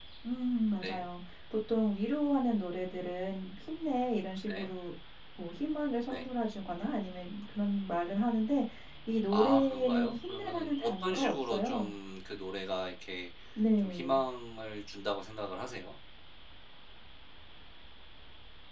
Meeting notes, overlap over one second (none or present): present